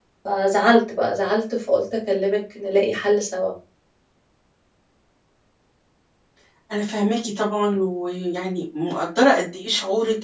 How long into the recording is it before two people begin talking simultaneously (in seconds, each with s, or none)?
none